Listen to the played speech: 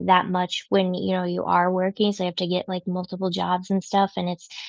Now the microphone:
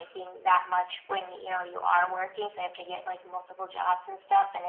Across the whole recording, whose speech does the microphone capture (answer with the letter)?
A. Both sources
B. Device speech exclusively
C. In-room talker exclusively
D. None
B